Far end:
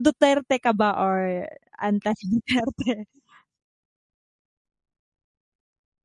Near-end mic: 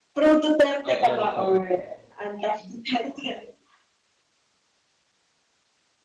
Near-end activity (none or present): present